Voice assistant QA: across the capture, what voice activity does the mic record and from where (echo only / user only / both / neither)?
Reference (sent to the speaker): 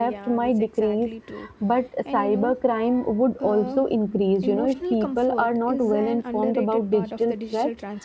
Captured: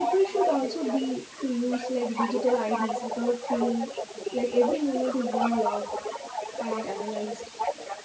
both